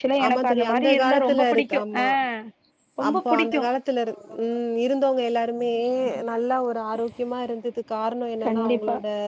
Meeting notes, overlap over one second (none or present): present